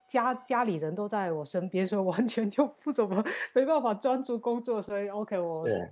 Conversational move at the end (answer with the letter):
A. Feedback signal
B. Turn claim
A